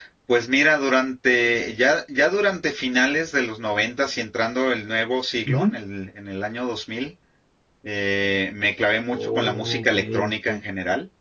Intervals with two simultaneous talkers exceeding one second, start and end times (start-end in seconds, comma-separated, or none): 9.1-10.6